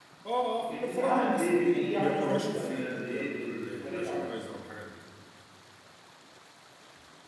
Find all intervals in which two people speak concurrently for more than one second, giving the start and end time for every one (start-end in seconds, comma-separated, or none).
0.7-4.3